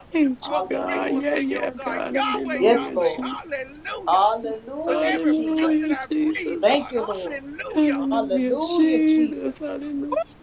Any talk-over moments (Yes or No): Yes